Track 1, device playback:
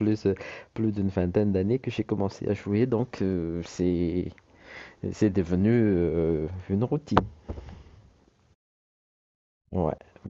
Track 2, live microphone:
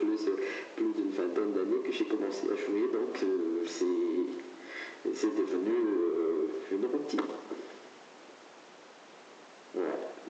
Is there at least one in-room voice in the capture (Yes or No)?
No